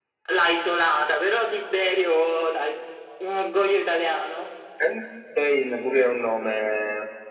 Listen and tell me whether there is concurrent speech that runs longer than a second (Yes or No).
No